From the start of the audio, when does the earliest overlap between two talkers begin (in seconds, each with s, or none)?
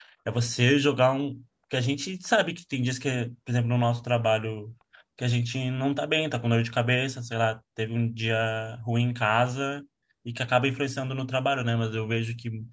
none